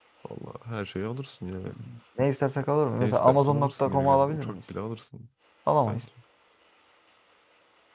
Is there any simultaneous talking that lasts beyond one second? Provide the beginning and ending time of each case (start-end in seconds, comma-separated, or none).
3.0-4.6